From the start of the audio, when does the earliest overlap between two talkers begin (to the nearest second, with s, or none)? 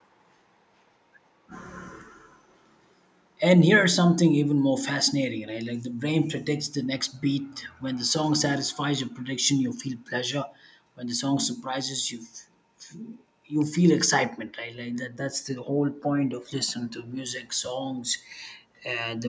none